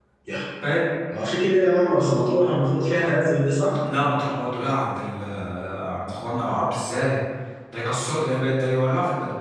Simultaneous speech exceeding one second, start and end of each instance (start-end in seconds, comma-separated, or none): none